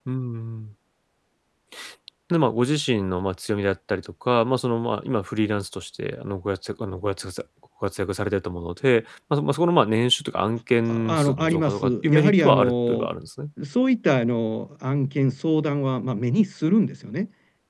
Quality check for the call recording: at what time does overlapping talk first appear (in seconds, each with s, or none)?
10.9 s